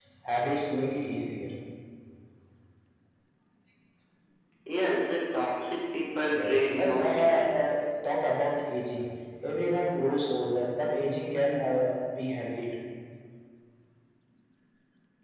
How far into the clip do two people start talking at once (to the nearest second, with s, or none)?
6 s